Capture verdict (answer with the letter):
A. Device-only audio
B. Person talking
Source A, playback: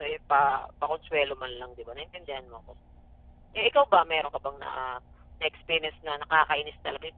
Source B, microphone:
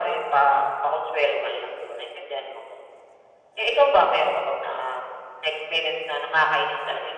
A